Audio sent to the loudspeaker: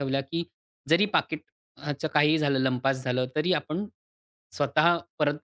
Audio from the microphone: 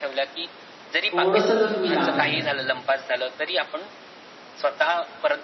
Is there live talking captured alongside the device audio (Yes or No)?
Yes